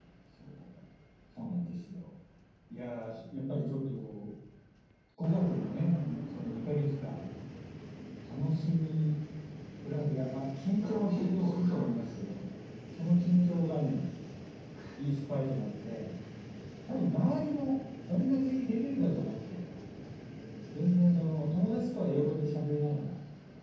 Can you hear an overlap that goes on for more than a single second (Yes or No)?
Yes